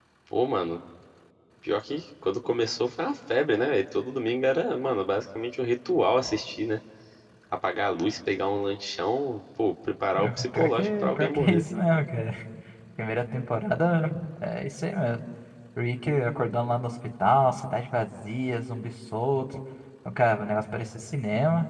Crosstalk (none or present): present